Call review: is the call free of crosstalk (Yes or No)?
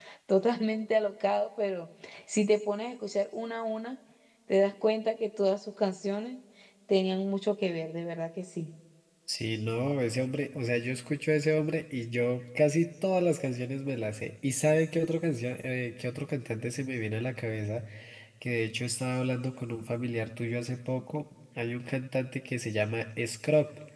Yes